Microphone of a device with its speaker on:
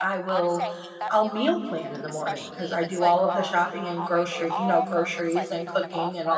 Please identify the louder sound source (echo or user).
user